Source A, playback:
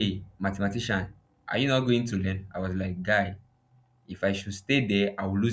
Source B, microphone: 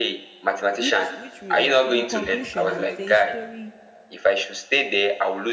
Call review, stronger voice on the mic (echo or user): echo